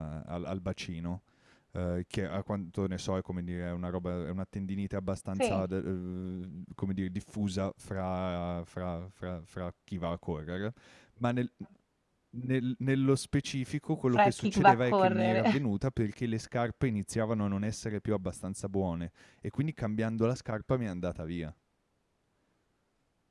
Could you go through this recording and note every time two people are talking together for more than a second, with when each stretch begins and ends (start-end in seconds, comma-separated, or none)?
14.2-15.4